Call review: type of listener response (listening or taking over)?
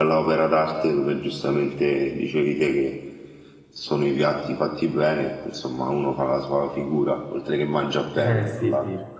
taking over